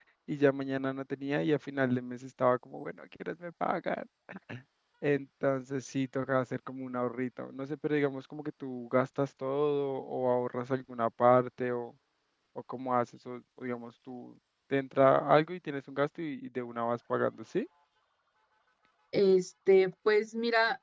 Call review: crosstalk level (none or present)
none